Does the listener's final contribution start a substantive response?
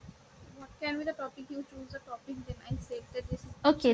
Yes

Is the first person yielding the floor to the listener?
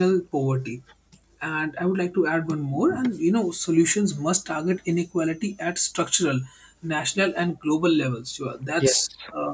No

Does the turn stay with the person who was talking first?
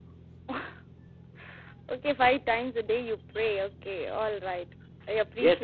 No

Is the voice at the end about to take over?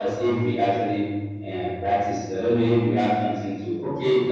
Yes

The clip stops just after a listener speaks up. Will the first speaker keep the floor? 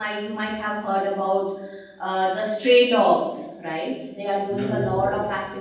Yes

